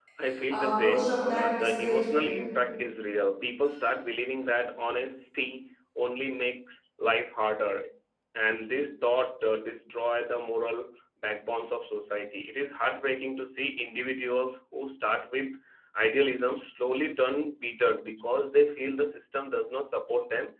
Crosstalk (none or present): present